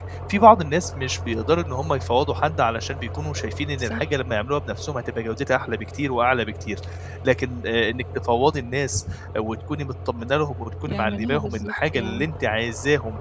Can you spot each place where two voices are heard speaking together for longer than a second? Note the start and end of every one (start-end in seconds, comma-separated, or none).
10.9-12.3